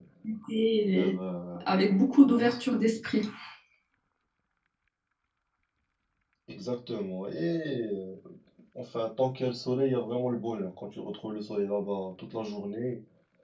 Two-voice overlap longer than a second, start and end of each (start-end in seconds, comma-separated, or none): none